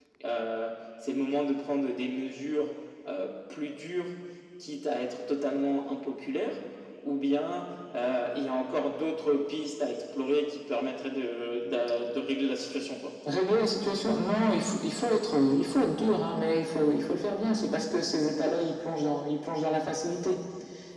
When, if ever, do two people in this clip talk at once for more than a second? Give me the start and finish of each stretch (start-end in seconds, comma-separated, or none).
none